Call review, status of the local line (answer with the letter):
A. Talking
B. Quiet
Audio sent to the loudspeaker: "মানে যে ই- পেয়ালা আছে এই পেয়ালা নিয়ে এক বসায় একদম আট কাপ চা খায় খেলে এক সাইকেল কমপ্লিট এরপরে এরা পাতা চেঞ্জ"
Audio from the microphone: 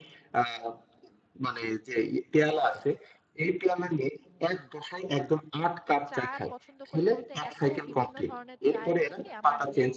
A